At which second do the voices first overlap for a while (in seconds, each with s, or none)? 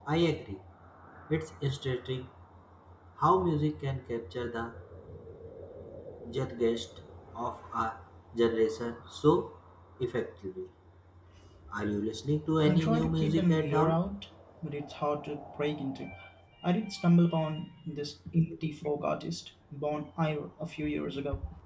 12.7 s